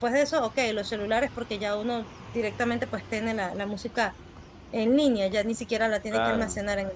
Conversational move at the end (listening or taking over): taking over